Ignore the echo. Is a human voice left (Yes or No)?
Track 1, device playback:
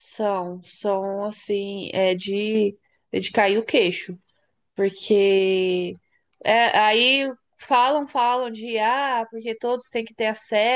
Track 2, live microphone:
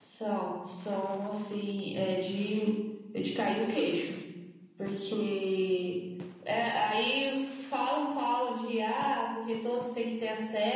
No